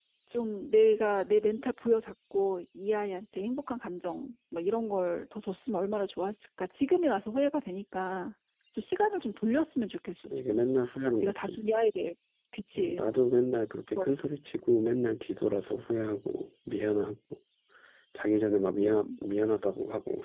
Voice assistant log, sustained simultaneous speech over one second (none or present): none